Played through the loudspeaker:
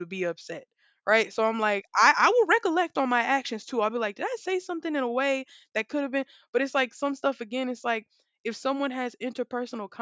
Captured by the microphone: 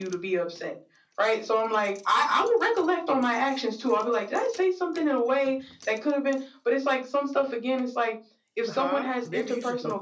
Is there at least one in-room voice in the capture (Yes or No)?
Yes